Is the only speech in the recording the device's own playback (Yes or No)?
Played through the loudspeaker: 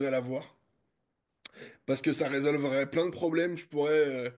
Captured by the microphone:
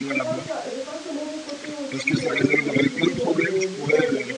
No